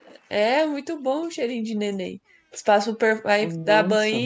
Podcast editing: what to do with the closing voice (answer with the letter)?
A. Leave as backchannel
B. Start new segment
A